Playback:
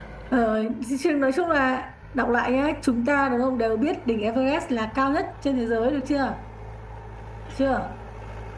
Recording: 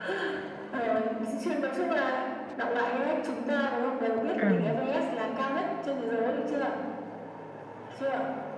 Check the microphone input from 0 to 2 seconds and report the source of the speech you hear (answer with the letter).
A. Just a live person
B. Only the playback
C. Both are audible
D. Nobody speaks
B